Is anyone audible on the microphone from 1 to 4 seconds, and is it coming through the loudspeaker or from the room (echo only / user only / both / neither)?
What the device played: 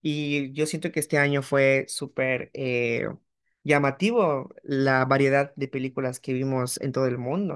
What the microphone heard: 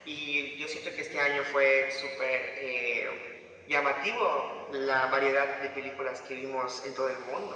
echo only